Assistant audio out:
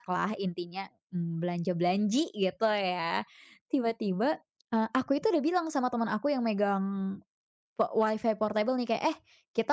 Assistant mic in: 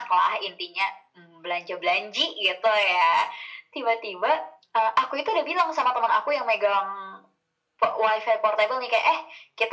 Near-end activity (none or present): none